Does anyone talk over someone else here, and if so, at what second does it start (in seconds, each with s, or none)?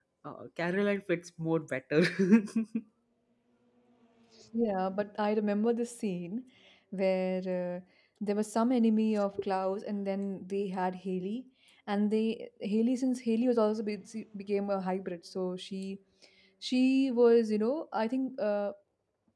none